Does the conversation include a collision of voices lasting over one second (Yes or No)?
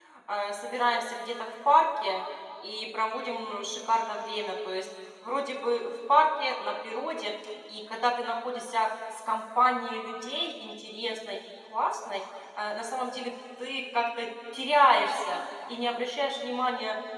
No